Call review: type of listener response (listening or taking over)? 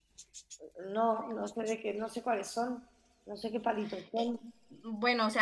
taking over